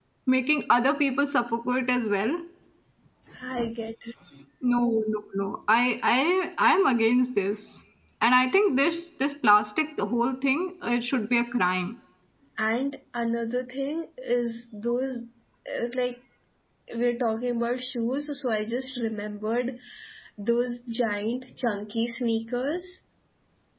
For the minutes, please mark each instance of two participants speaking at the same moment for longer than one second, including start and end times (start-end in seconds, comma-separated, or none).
none